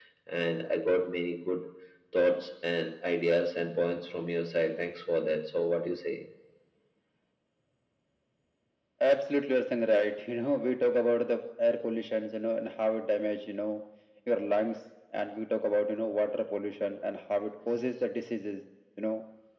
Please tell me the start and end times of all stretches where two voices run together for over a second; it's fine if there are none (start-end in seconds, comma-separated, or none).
none